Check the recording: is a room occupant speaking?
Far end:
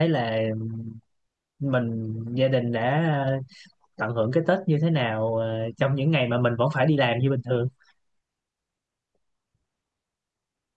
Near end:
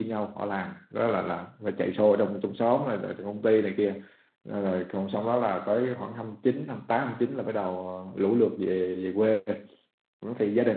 Yes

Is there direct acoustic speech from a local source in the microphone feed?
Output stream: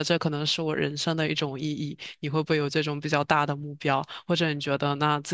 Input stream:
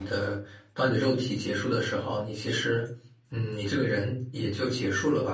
Yes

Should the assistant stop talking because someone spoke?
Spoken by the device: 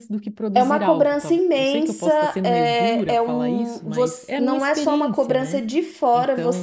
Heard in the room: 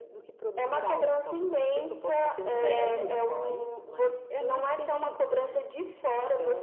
Yes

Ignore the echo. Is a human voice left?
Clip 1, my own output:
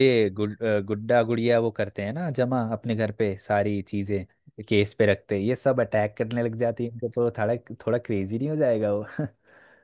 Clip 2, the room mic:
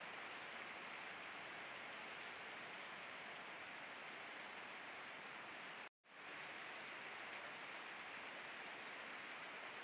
No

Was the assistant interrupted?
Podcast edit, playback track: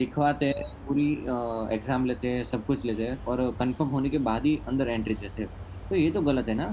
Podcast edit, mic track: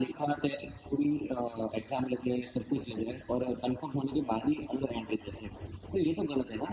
No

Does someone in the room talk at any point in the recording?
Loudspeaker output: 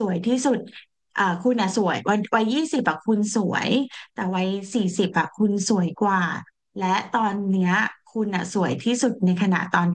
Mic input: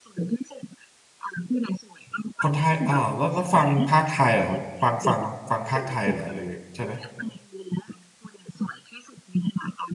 Yes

